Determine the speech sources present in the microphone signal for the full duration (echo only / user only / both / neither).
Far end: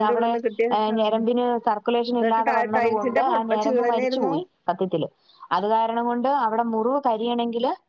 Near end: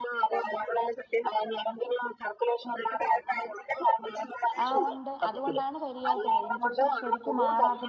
both